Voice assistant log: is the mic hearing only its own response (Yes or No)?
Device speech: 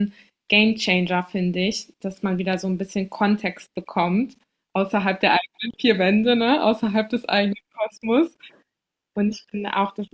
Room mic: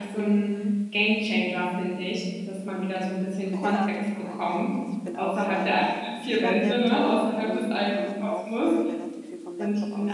No